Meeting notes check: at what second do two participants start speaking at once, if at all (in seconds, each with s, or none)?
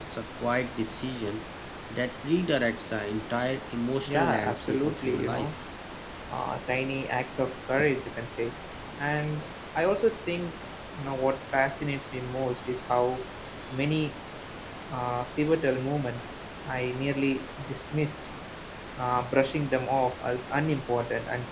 4.1 s